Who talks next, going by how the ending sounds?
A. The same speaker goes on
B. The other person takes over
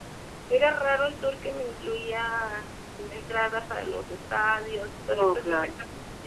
A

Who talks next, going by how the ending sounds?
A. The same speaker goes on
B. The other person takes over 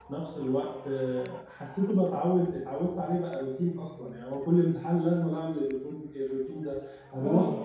A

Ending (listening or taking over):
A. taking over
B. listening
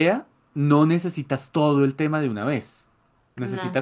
B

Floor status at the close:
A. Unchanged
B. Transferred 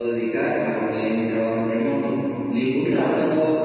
A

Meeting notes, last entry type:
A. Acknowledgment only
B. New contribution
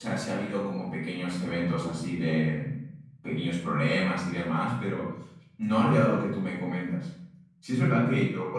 A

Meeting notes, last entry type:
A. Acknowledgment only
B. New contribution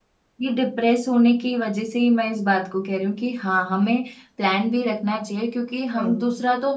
A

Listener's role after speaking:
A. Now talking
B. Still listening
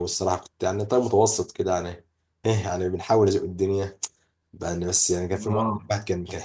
B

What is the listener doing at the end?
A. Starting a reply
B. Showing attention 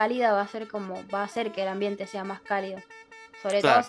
B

